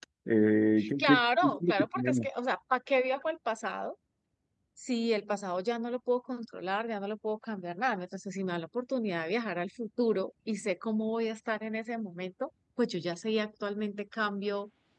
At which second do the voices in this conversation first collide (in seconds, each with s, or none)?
1.0 s